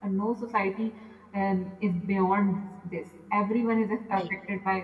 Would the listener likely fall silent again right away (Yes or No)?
Yes